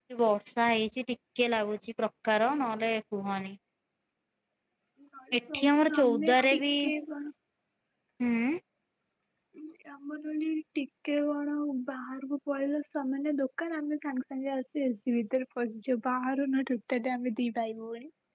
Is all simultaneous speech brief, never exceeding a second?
No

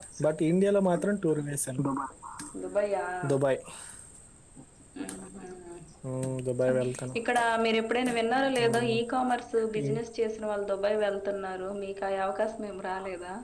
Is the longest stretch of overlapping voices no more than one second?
Yes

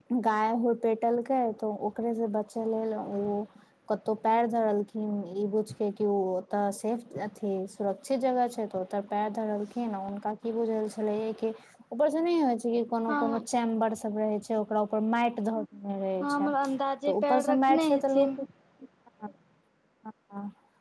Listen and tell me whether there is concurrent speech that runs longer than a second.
Yes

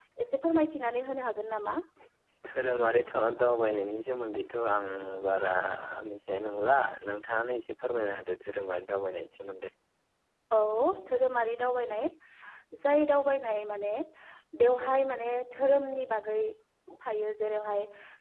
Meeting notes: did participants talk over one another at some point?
No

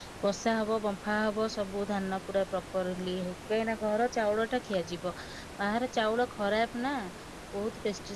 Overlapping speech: No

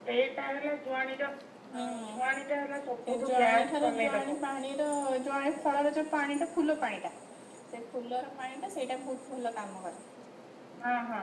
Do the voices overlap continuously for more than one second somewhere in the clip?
Yes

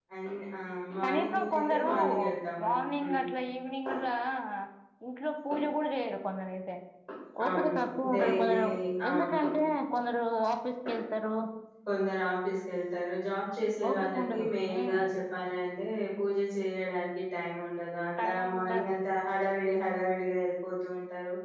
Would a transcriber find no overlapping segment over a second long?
No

